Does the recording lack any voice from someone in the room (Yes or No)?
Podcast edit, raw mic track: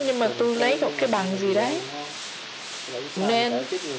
No